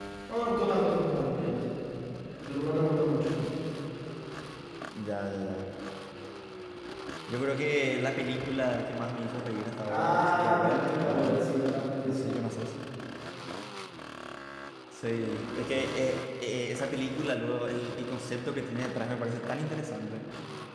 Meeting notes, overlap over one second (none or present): present